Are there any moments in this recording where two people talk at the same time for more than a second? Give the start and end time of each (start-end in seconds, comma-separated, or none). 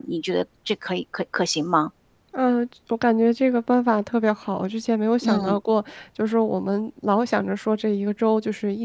none